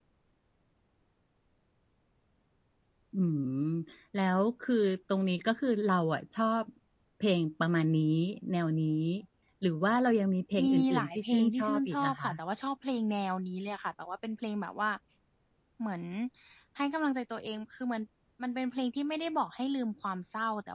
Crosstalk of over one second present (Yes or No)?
Yes